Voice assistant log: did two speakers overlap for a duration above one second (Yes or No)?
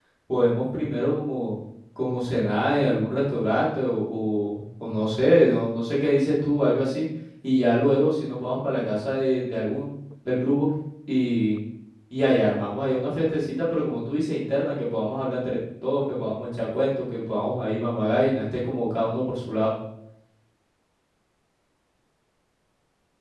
No